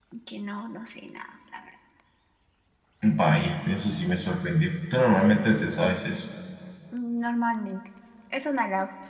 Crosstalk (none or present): none